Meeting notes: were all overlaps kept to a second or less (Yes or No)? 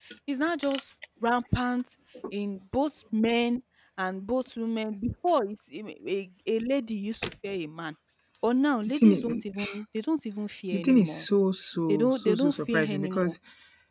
No